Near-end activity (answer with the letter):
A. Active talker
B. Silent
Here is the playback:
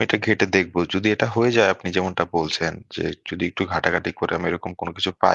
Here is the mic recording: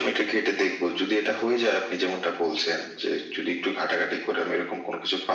B